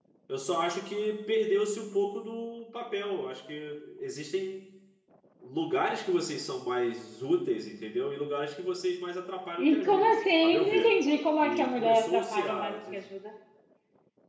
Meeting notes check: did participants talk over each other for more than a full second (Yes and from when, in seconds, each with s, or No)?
Yes, from 9.6 s